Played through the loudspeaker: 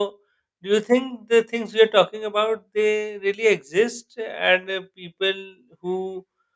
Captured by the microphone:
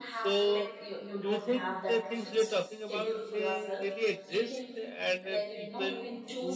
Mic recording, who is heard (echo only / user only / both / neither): both